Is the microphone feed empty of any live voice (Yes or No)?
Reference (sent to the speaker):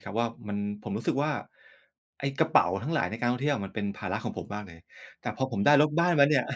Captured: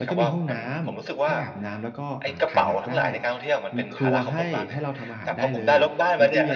No